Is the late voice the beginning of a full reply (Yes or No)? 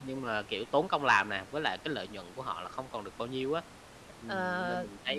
Yes